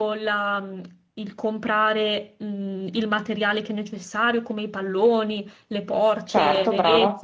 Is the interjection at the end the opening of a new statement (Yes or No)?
No